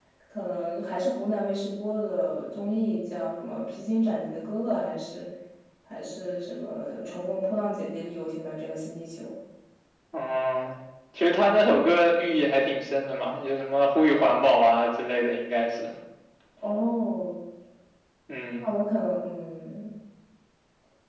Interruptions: none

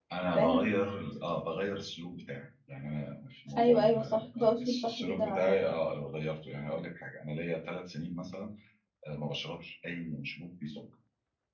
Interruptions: present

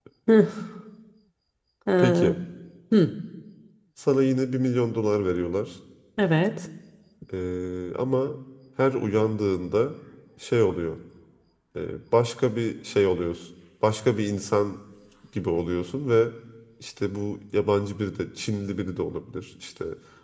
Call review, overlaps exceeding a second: none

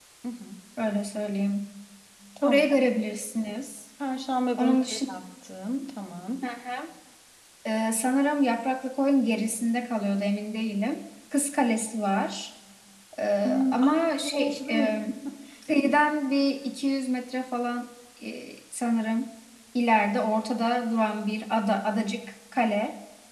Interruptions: present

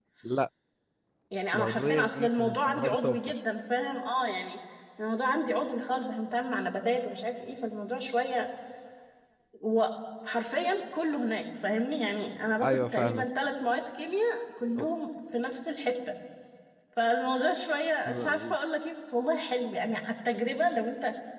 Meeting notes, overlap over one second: present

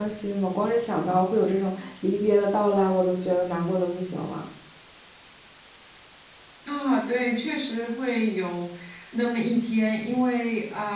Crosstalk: none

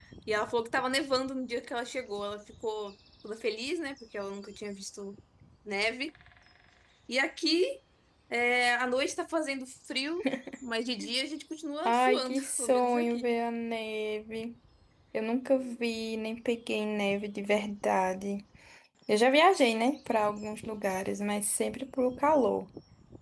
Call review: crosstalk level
present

